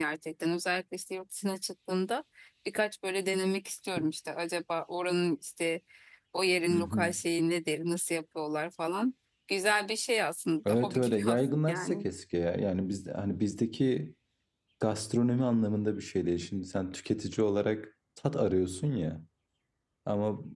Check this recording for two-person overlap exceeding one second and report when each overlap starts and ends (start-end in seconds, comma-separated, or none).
10.7-12.1